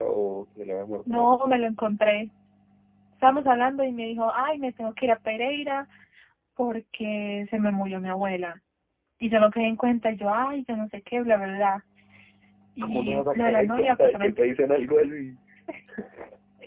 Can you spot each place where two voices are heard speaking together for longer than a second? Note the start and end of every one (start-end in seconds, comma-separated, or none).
12.8-14.3